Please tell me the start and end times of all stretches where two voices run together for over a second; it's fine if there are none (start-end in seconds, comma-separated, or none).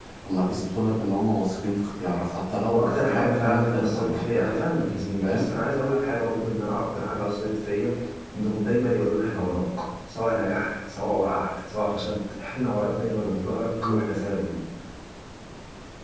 2.7-4.6